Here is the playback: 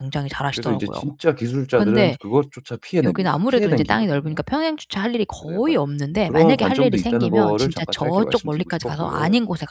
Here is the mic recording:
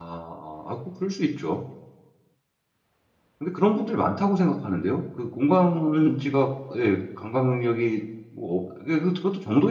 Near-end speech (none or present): present